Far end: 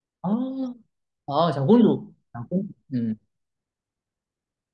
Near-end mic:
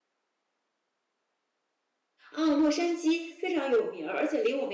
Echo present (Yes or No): No